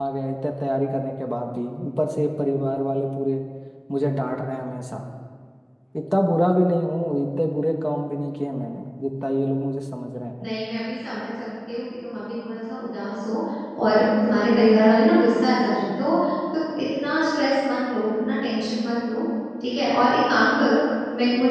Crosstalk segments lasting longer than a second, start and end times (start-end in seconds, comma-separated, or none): none